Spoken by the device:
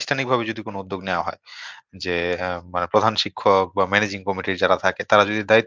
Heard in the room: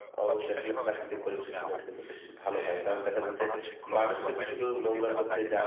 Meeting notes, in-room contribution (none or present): present